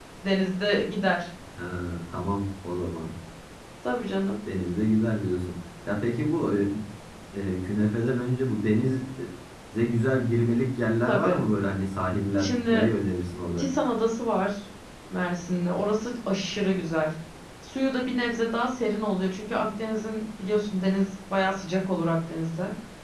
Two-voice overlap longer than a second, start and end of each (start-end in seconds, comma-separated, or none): none